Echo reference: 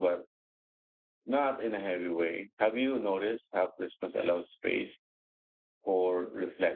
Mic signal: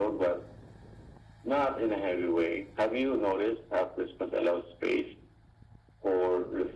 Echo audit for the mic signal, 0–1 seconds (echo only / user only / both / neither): echo only